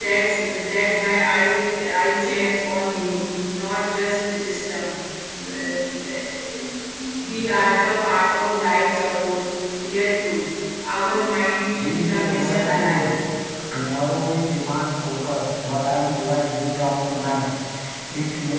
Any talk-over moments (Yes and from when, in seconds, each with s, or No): Yes, from 11.8 s